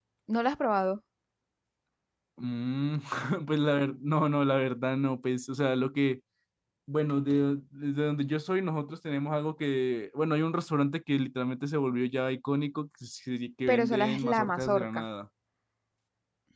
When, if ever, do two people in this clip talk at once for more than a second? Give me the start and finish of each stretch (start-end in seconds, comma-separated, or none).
13.7-15.0